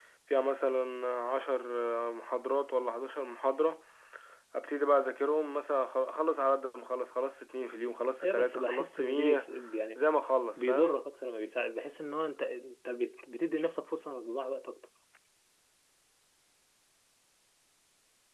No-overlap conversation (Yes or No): No